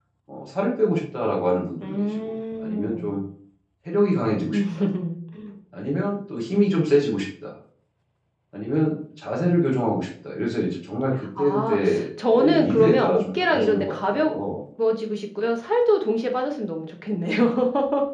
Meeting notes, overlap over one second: present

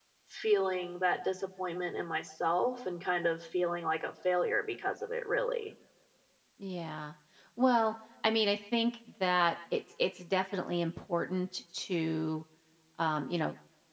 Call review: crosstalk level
none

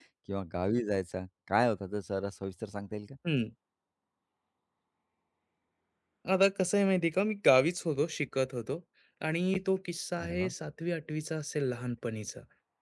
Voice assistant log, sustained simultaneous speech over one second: none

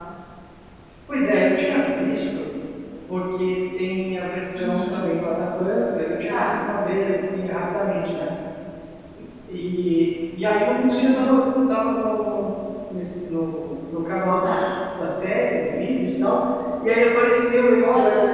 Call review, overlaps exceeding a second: none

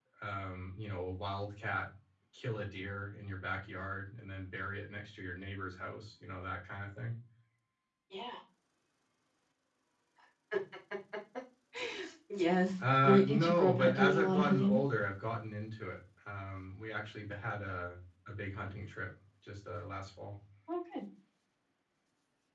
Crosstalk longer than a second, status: present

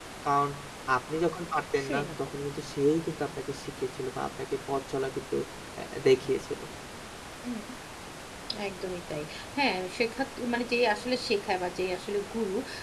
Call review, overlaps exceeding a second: none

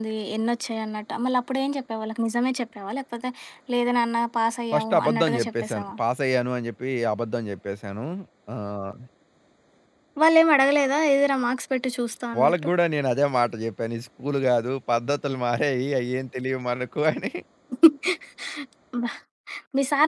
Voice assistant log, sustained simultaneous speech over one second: present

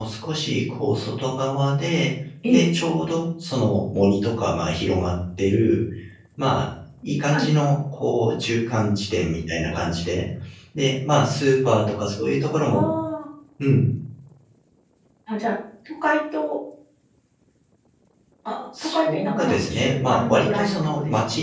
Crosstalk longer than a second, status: present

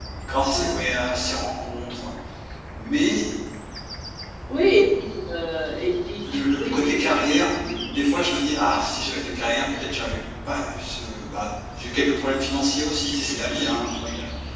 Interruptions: present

